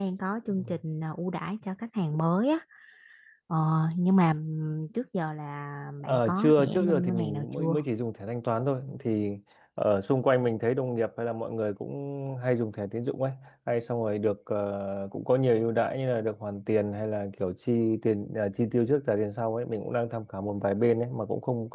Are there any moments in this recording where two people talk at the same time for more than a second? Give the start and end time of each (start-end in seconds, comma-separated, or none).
6.1-7.8